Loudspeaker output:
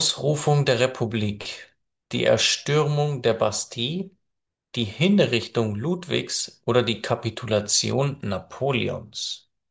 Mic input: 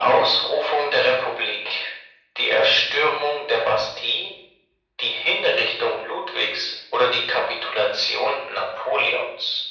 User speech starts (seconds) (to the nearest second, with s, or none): none